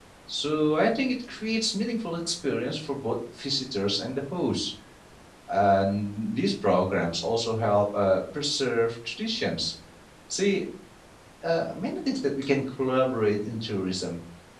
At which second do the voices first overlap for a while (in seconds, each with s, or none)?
none